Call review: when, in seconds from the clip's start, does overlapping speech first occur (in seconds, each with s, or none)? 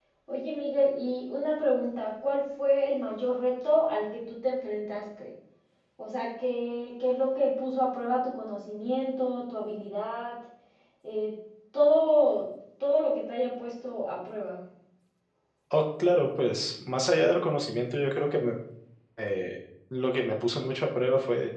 none